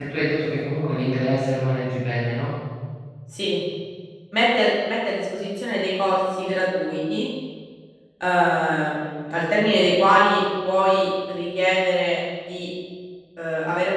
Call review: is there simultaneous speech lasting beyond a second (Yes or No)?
No